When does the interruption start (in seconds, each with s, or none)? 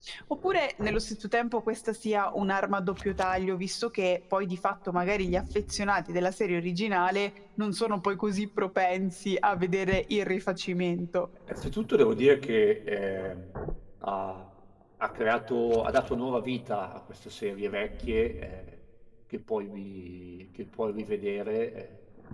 none